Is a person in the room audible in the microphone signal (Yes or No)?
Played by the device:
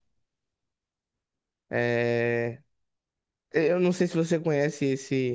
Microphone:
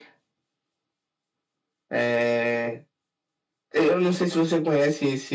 No